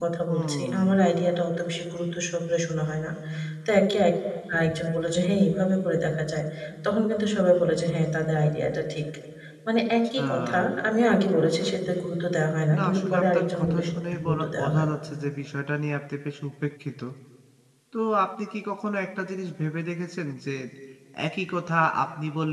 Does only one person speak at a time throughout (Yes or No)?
No